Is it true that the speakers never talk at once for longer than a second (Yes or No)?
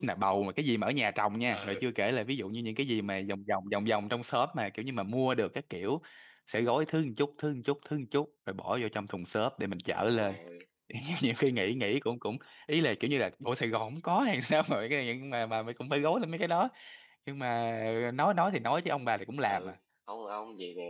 Yes